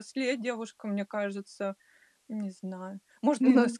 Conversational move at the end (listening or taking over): listening